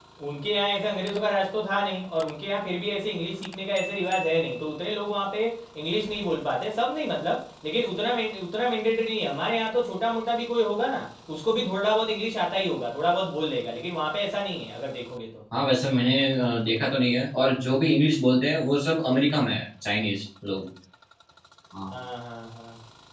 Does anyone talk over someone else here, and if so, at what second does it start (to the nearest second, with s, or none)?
none